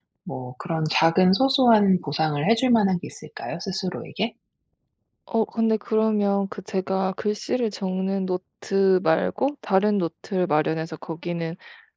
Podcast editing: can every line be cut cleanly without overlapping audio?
Yes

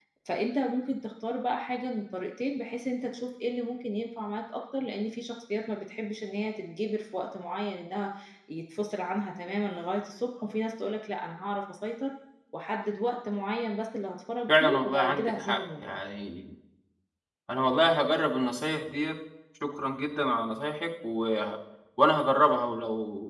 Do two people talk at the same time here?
Yes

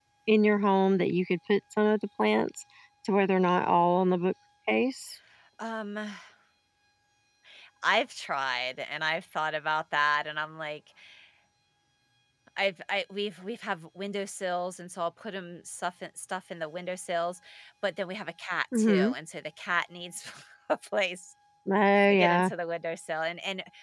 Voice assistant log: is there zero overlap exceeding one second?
Yes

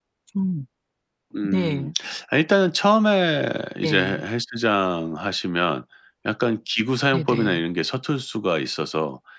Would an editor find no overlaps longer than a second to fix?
Yes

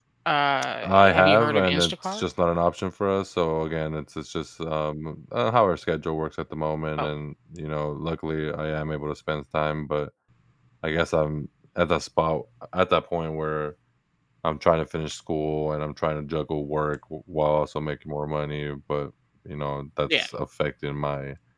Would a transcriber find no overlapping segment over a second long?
No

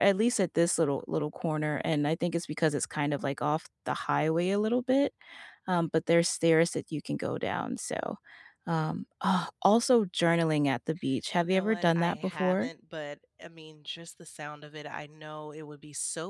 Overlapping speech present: Yes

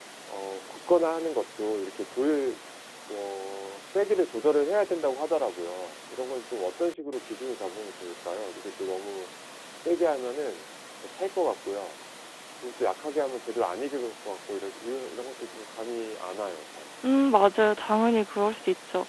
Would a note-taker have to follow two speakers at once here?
No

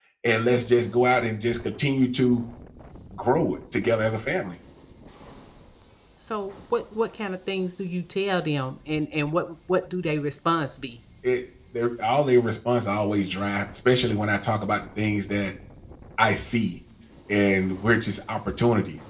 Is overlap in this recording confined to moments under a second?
Yes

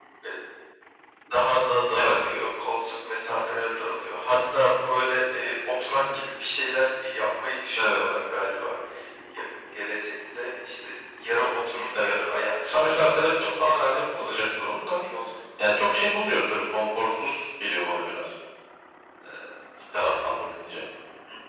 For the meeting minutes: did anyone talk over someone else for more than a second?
Yes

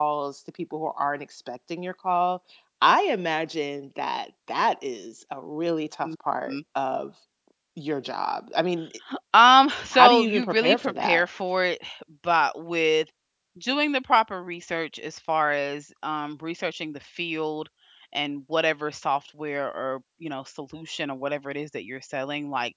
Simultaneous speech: Yes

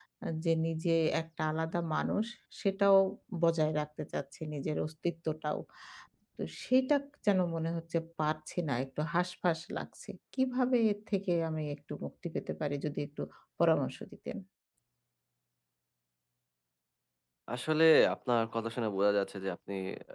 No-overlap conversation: Yes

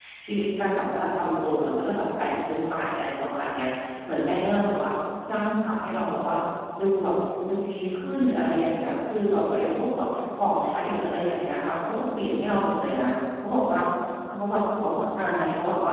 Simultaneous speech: No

